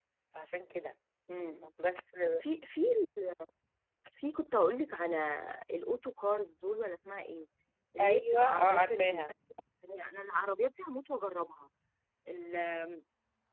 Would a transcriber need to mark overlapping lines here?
Yes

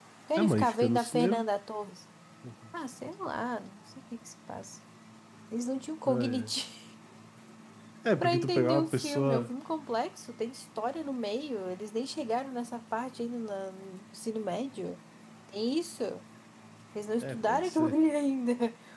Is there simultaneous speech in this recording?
Yes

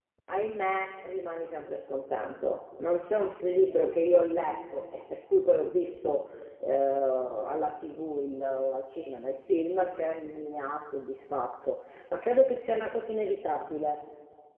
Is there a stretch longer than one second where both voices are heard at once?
No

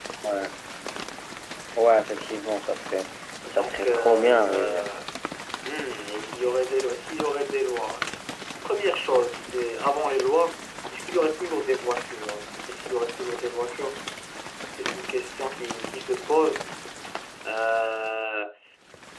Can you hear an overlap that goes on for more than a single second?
Yes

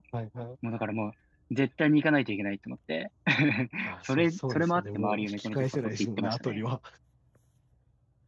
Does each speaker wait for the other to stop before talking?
No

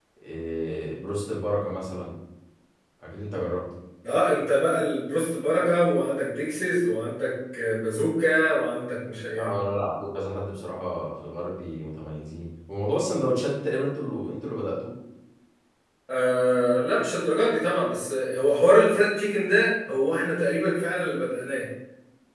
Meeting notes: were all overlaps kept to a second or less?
Yes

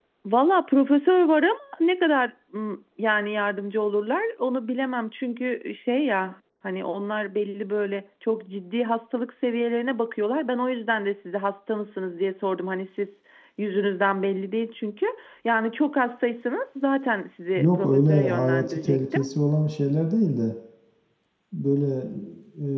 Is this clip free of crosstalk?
No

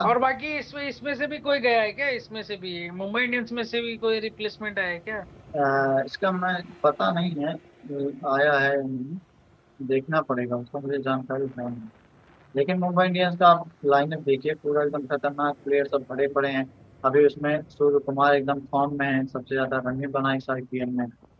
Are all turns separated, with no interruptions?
Yes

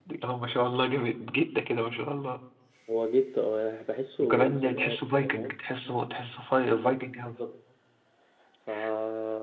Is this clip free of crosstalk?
No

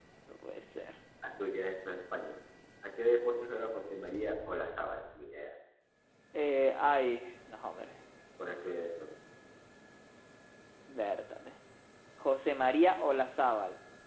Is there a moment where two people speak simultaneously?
No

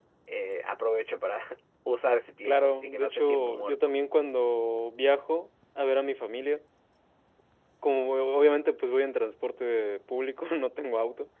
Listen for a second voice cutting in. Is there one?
Yes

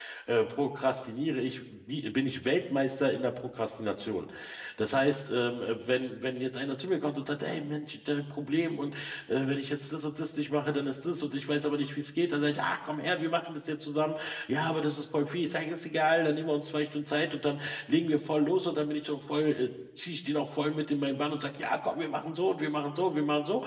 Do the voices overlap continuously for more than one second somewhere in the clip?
No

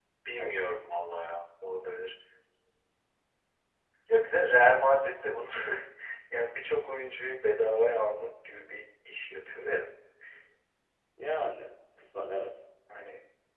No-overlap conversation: Yes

